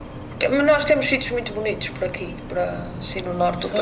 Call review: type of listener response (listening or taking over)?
taking over